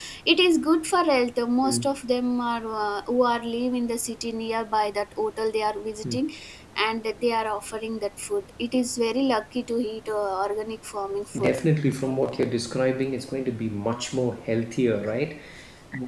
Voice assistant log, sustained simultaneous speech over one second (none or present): none